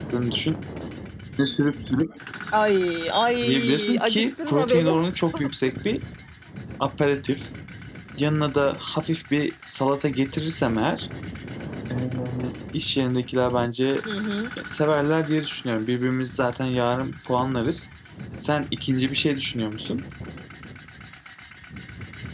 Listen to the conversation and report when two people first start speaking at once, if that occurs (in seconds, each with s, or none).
3.4 s